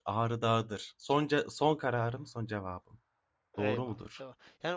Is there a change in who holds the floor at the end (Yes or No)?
Yes